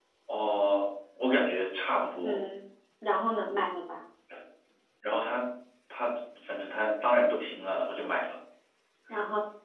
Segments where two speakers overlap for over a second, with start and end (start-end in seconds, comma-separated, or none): none